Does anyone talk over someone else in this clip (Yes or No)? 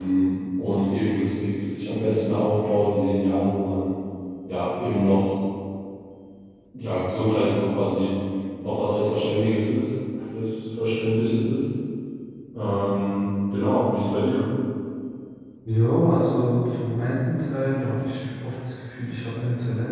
No